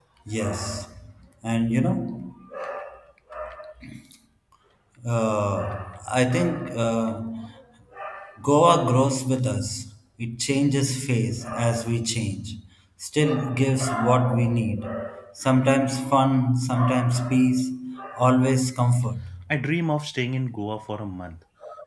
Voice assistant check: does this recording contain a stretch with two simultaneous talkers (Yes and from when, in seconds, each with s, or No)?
No